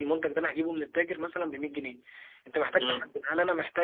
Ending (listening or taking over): listening